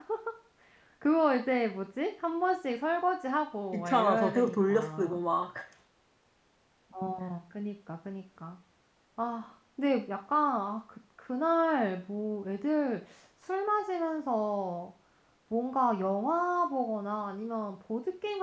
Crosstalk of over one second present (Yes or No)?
Yes